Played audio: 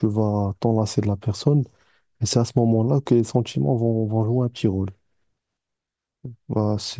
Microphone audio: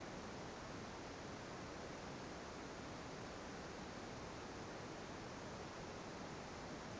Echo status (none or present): none